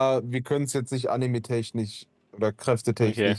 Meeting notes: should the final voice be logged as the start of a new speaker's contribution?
No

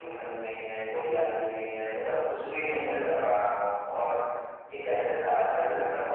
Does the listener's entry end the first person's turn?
No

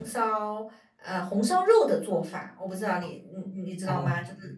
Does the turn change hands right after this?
Yes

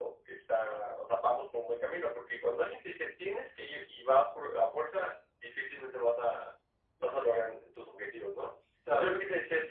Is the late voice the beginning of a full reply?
No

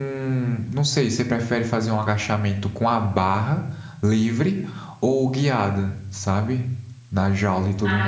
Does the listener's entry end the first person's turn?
Yes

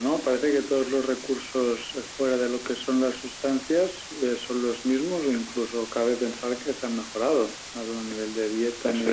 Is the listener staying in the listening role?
Yes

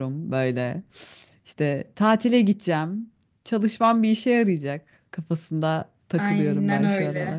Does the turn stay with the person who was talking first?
No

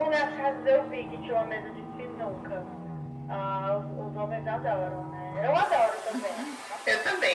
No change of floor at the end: No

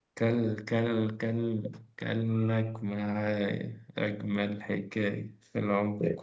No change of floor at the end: No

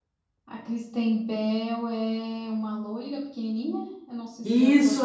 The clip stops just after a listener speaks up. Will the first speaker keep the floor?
No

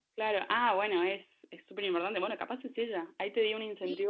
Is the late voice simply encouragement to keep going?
No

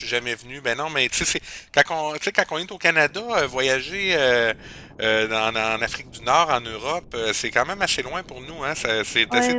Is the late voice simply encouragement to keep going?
No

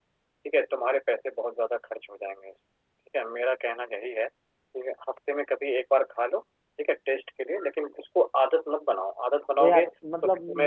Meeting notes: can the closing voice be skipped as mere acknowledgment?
No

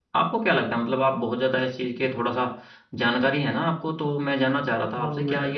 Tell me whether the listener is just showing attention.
Yes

